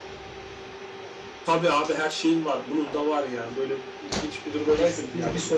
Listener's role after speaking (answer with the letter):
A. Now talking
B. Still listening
A